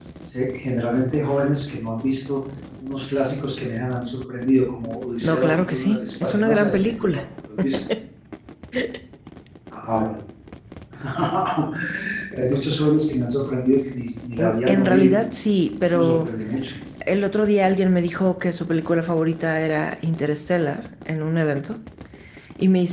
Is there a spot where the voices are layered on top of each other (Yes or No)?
Yes